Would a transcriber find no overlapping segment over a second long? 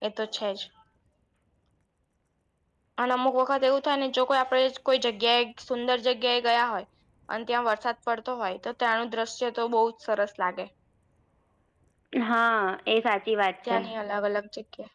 Yes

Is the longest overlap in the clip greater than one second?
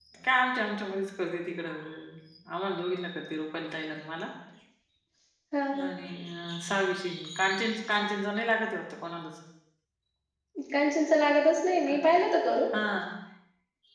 No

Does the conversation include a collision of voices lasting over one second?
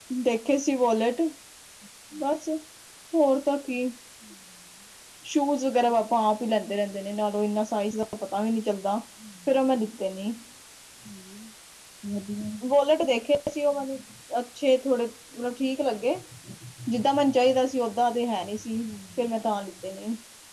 No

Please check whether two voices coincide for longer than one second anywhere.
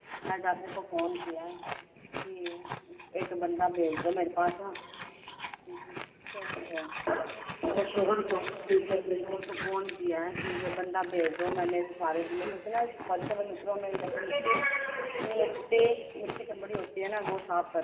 No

